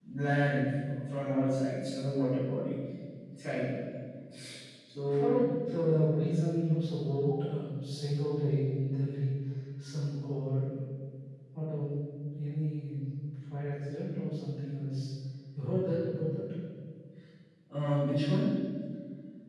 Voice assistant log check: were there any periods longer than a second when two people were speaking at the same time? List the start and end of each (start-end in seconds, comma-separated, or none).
none